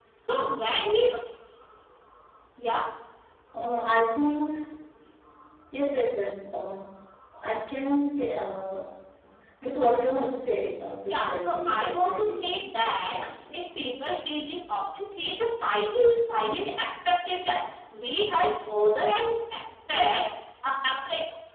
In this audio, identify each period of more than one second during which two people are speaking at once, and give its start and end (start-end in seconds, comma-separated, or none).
11.1-12.6